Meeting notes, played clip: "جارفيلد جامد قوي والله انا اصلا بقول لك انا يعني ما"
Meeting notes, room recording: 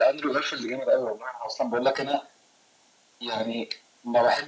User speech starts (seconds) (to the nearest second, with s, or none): none